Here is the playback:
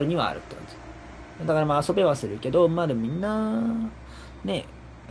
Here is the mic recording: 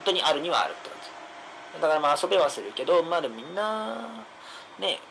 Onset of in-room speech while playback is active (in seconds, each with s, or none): none